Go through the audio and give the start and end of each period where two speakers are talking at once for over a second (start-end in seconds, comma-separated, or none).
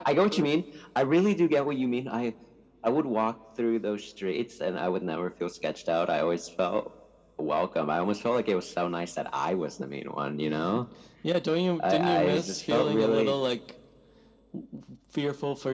11.8-13.4